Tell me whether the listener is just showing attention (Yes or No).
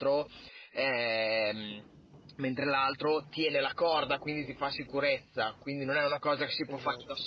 Yes